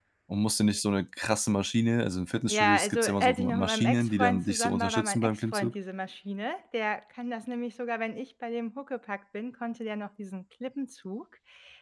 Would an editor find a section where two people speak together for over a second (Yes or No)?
Yes